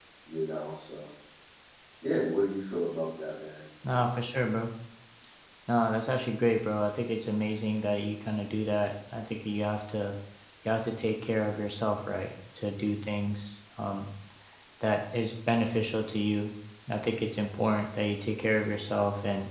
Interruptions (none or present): none